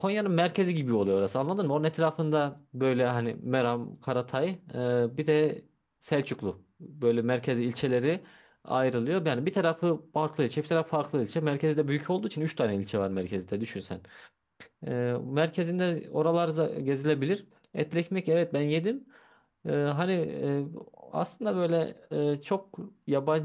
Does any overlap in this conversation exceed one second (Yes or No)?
No